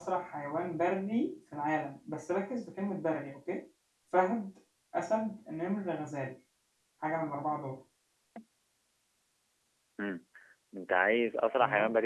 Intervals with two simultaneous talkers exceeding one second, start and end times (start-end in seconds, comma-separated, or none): none